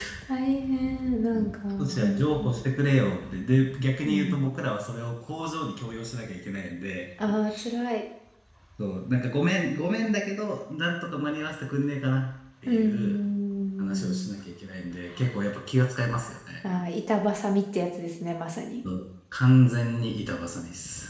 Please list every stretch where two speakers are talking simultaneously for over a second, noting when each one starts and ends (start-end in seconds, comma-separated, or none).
1.3-2.5